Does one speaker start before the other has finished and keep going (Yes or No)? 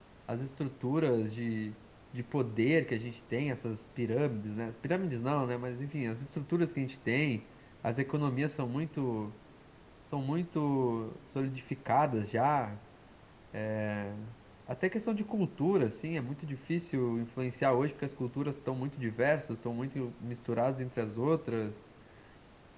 No